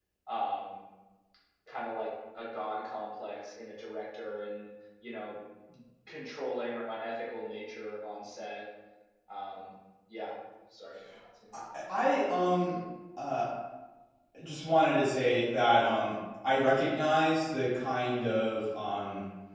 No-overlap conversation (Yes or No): Yes